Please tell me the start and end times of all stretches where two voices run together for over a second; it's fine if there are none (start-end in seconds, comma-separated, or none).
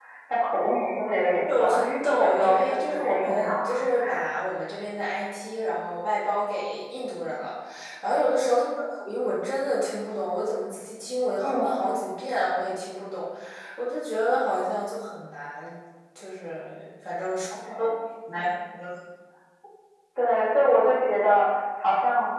2.2-3.5